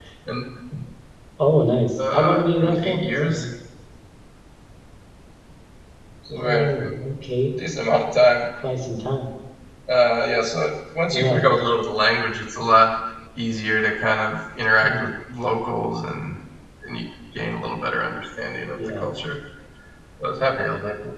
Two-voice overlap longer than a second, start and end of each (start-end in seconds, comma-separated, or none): 2.1-3.4